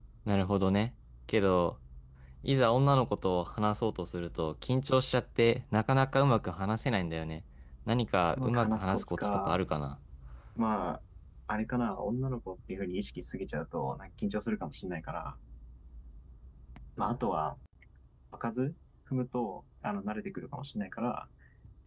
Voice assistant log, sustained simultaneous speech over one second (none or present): present